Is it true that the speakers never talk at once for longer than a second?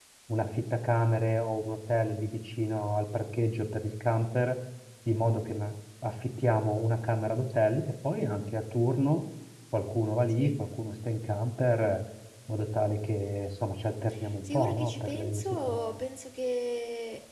No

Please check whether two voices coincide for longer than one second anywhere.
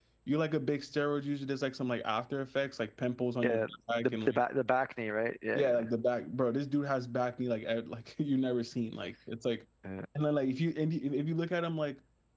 No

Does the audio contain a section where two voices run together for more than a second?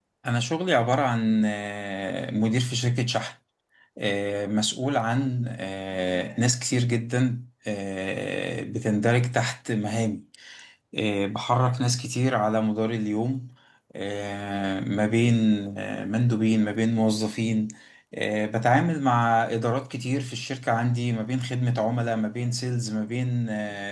No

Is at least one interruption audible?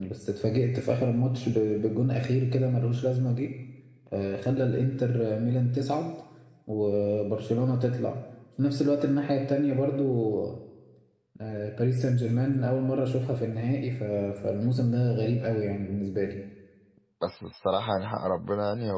No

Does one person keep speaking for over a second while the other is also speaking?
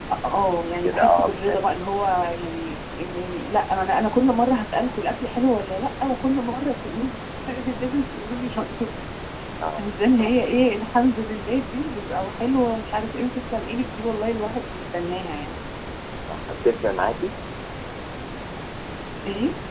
Yes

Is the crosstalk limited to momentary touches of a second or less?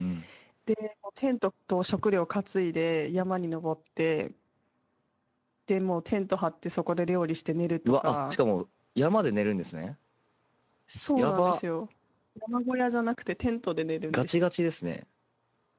Yes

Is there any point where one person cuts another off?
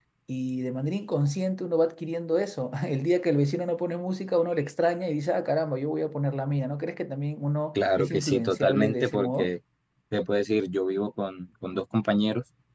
Yes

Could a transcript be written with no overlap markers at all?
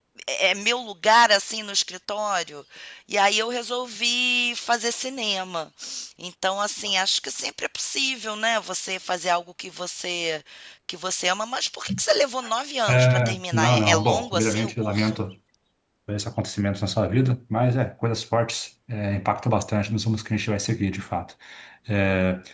No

